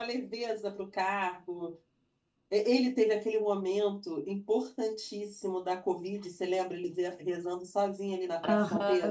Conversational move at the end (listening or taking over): taking over